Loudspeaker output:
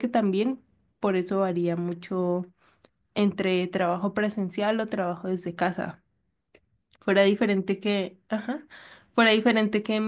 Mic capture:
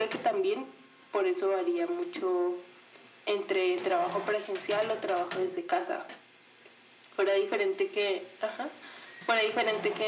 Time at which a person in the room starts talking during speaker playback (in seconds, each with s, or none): none